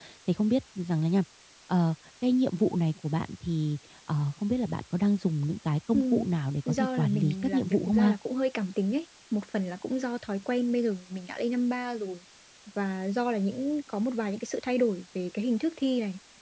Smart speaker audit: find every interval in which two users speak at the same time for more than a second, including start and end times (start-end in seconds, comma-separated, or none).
6.7-8.1